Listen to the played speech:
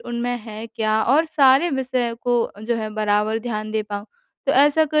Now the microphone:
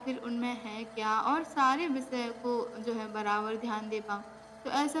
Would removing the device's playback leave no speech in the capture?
Yes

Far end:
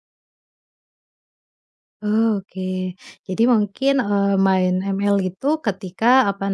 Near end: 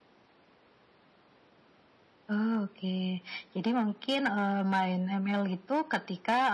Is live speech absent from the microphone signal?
Yes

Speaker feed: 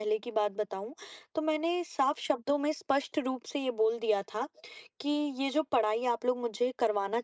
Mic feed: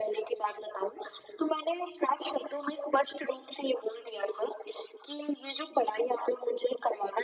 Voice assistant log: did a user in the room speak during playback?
No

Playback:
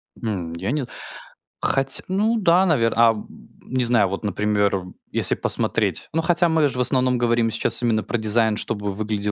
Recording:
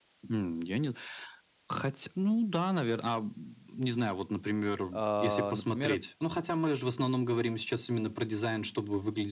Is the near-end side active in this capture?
Yes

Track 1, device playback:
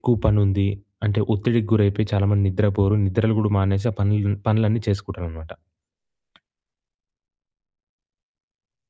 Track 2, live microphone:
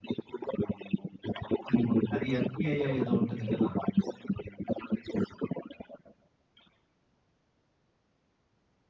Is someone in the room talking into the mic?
Yes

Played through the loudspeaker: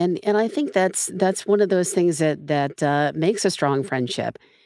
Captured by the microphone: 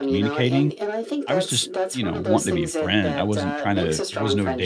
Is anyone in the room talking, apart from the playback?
Yes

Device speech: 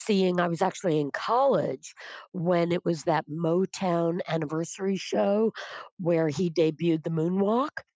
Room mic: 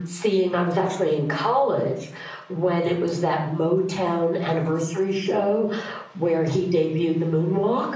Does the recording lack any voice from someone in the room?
Yes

